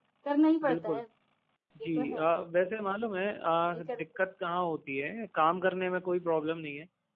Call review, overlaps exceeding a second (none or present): none